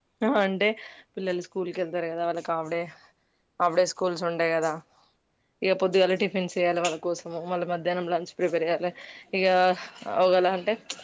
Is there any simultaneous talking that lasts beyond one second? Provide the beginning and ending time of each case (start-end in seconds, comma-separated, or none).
none